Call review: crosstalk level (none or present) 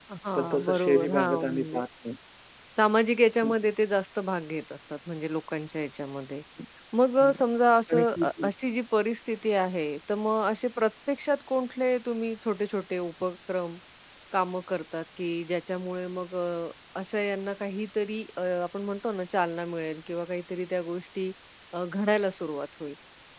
present